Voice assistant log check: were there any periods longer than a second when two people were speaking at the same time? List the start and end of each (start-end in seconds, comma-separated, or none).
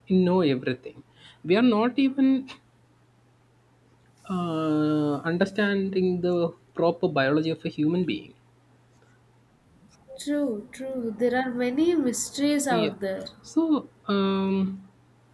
none